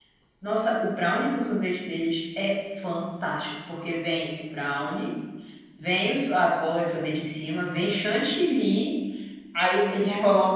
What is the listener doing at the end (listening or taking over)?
listening